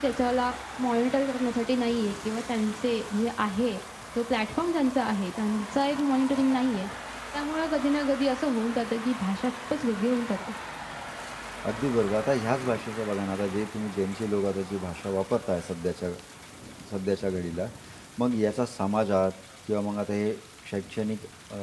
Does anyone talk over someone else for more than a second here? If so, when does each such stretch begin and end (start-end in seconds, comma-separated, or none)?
none